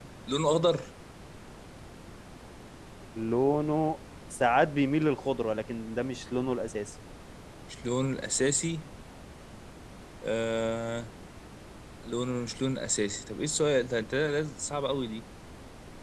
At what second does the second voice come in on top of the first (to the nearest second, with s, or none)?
none